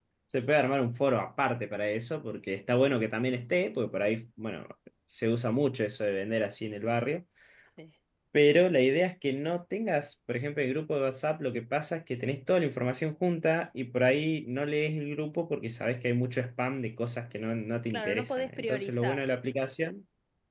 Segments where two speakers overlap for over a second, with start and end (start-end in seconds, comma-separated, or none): 17.9-19.3